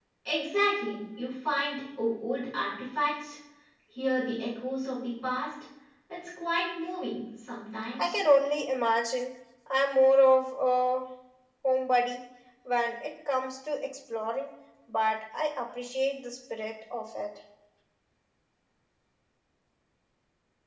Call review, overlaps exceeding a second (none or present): none